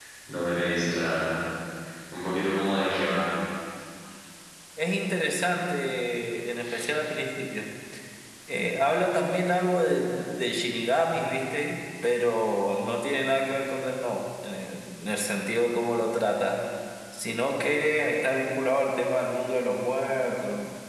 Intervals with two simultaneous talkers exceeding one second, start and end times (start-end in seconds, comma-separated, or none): none